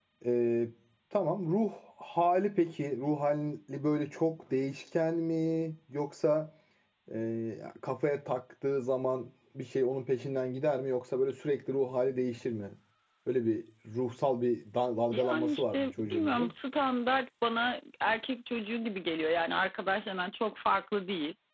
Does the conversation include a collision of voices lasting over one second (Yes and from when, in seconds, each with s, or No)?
Yes, from 15.1 s